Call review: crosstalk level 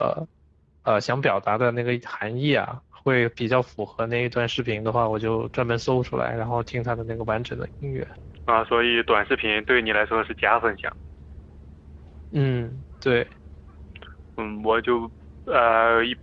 none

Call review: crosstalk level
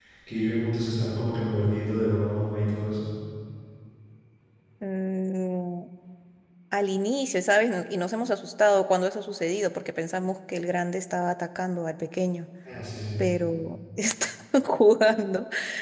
none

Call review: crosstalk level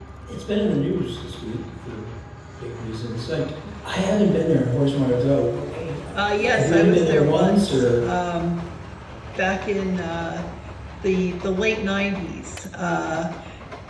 present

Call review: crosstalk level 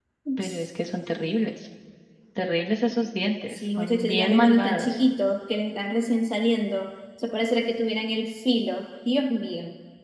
present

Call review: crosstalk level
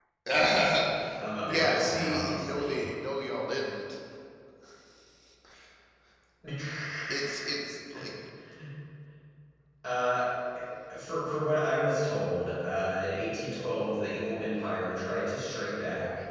present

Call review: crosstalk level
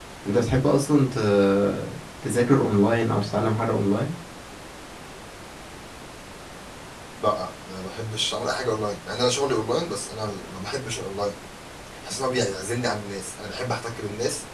none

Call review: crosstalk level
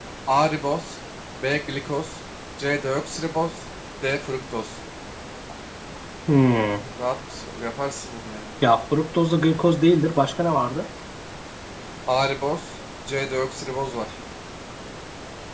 none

